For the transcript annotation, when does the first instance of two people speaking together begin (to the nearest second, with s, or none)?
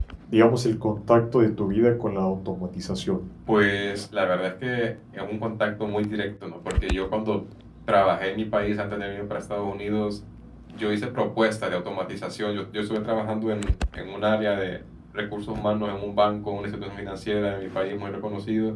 none